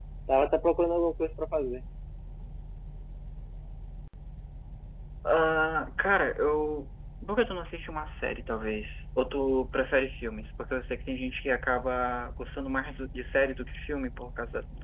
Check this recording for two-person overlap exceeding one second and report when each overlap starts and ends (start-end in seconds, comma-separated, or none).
none